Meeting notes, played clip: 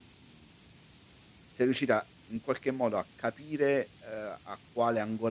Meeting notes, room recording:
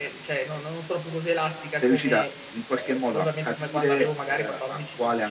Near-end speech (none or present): present